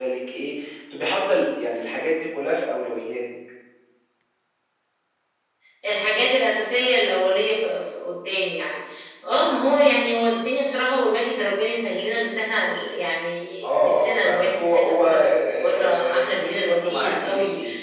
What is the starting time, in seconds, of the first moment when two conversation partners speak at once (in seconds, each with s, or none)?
13.6 s